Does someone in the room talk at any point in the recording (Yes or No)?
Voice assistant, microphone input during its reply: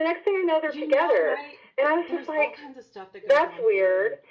Yes